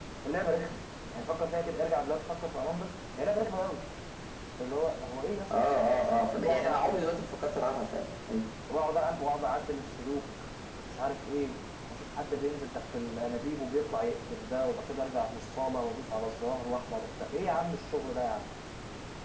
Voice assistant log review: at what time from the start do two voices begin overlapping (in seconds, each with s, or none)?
5.5 s